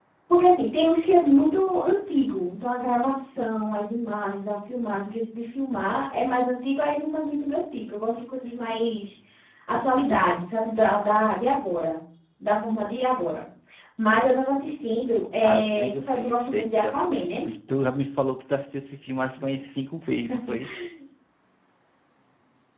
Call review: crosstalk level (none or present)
present